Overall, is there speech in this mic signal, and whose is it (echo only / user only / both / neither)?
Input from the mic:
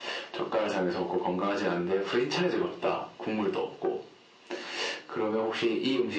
echo only